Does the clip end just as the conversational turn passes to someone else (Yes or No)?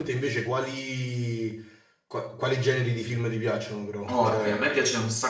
Yes